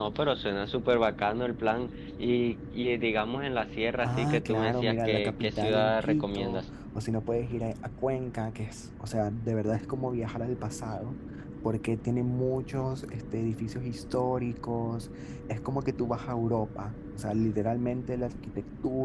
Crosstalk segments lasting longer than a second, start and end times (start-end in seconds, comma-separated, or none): 4.0-6.6